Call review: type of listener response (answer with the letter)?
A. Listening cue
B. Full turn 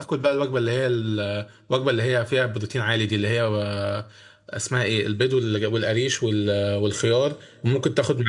A